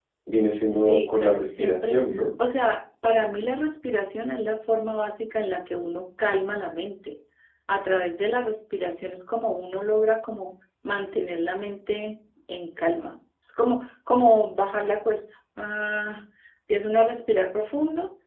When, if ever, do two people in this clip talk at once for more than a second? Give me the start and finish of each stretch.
0.7-2.0

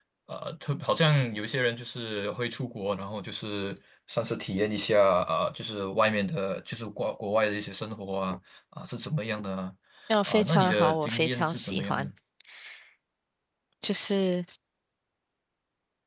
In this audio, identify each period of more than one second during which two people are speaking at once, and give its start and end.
10.3-12.1

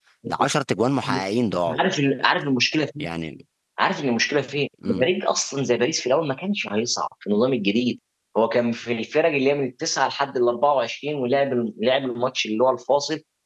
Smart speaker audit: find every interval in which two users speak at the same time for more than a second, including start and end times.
none

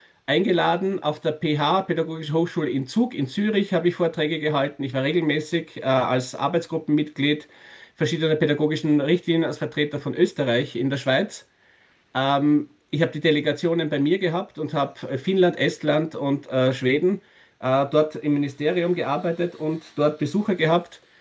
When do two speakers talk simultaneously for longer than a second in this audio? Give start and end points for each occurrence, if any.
none

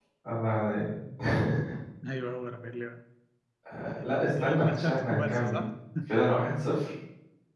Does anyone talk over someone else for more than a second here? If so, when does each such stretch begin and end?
4.3-5.6

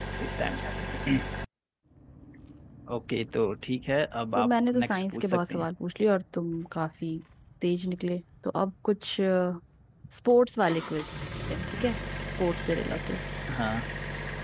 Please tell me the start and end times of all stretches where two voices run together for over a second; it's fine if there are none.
4.4-5.7

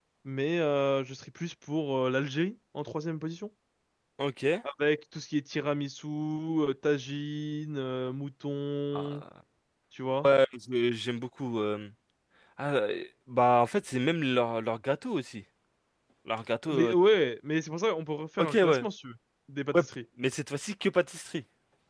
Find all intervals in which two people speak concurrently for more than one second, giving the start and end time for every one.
none

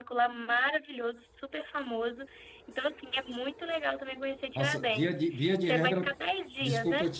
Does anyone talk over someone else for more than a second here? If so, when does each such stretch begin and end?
4.5-6.1

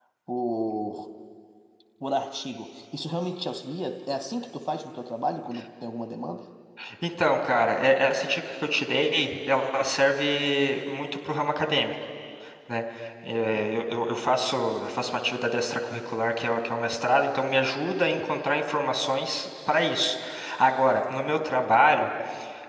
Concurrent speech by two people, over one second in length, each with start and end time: none

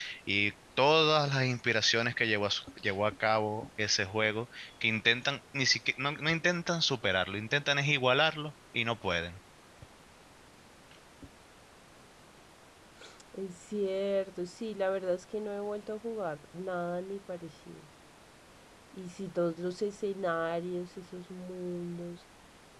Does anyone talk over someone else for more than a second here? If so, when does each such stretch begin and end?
none

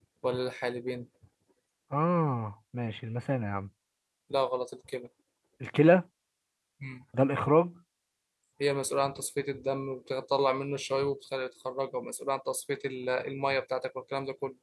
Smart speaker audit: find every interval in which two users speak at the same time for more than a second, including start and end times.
none

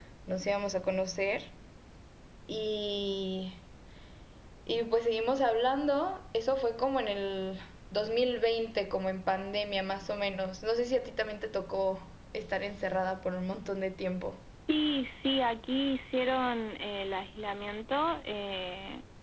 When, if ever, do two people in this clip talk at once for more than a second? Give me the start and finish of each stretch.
none

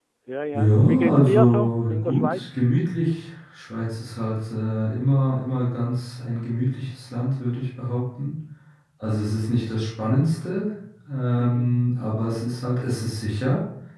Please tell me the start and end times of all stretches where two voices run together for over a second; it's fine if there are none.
0.5-2.6

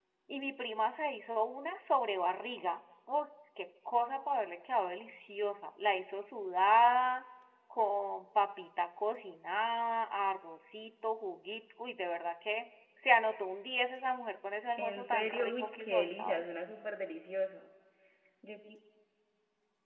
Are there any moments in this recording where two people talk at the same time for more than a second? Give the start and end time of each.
14.8-16.4

